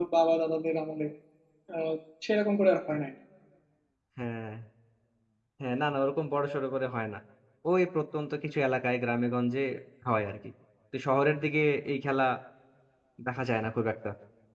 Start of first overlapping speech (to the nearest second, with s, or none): none